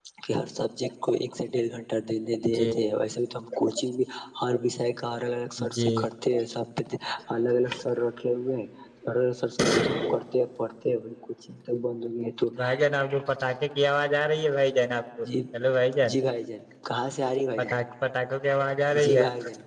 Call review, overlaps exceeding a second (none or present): none